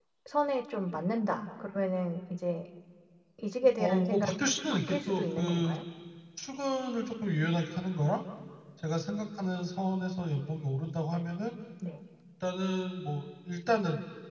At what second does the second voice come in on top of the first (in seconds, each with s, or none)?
3.8 s